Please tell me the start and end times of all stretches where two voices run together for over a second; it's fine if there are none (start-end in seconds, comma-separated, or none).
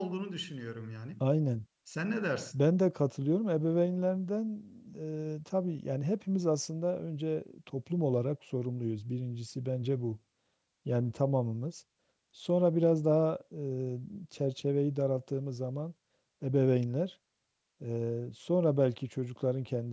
none